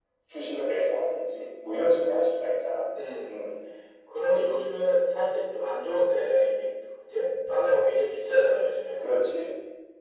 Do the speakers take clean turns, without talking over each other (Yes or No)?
Yes